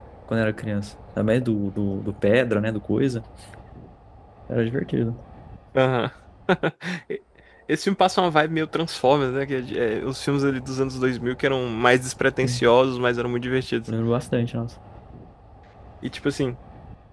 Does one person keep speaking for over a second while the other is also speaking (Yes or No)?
No